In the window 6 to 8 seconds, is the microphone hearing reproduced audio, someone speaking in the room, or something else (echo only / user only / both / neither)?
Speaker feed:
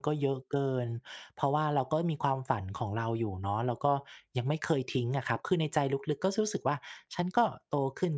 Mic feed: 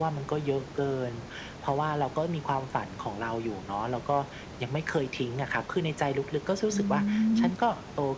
both